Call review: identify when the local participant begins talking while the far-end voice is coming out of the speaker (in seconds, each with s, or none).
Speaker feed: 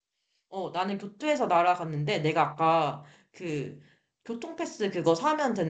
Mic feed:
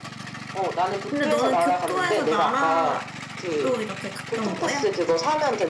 1.1 s